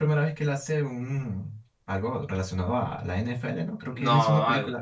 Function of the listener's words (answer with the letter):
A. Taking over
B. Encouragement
A